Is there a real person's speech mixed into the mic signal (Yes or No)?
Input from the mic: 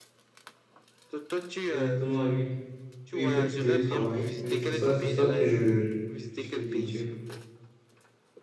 Yes